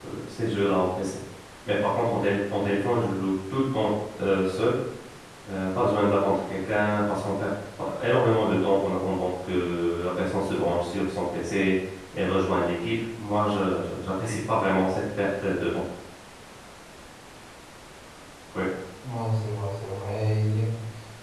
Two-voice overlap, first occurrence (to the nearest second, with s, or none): none